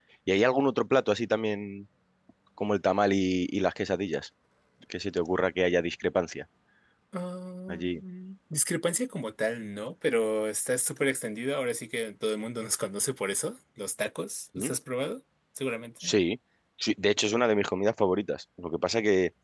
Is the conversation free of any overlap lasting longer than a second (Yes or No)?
Yes